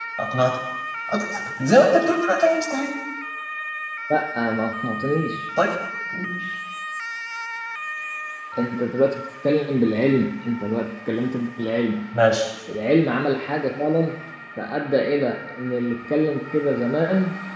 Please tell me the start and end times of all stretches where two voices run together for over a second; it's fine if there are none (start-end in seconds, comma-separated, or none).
none